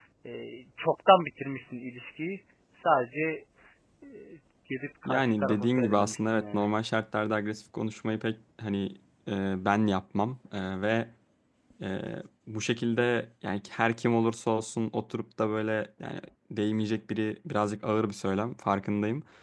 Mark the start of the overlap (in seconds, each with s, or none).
5.0 s